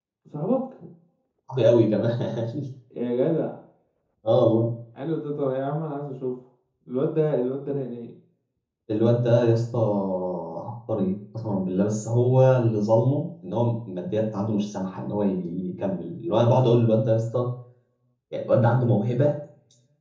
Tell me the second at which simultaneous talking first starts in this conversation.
none

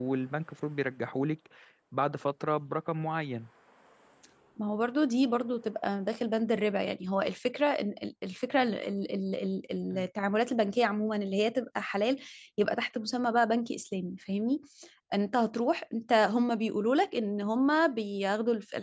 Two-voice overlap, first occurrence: none

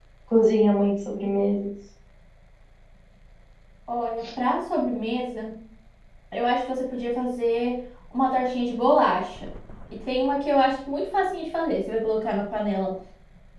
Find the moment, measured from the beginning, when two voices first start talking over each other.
none

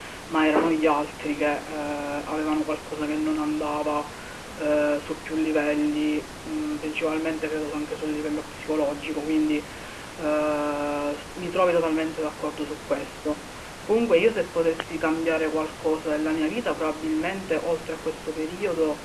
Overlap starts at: none

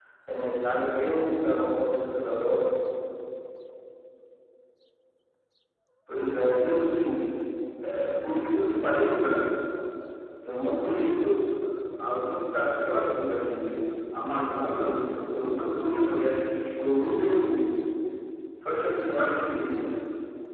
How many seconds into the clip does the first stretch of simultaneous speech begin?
none

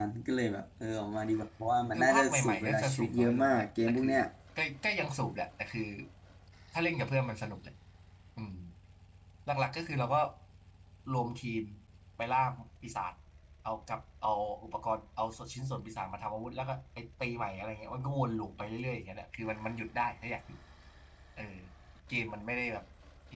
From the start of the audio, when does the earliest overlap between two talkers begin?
1.9 s

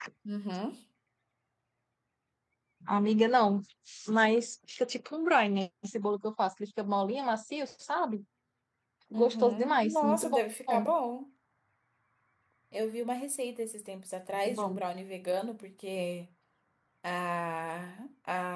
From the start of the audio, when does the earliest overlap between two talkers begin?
9.1 s

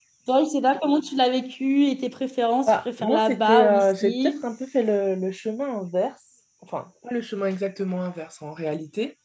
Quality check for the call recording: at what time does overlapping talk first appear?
2.7 s

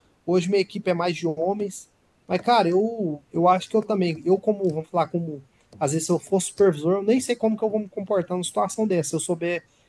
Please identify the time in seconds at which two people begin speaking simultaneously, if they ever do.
none

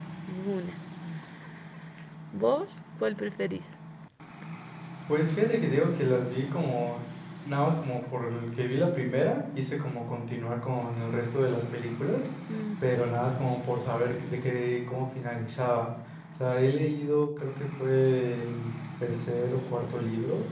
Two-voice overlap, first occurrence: none

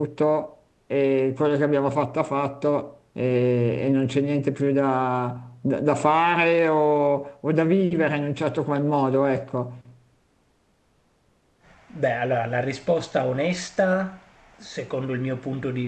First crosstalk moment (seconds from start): none

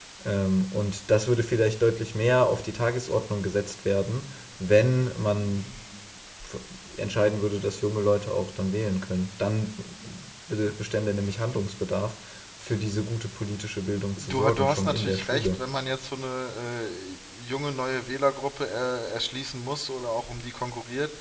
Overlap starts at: 14.2 s

